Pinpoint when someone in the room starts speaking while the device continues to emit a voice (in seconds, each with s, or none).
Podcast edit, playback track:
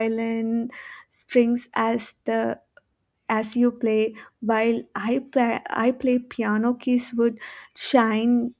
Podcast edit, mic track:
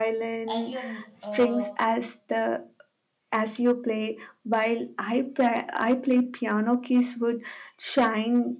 0.5 s